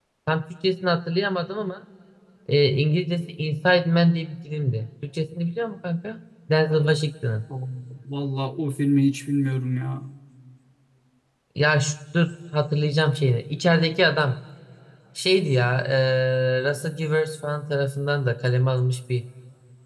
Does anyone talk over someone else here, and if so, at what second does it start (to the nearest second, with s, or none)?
none